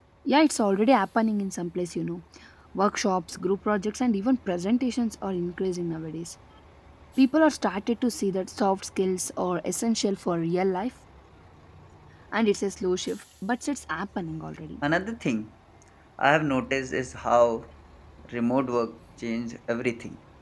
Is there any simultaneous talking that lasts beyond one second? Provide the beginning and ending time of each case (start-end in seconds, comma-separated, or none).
none